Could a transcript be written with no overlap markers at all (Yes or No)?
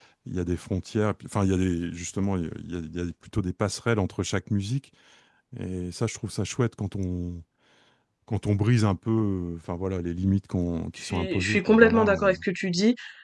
No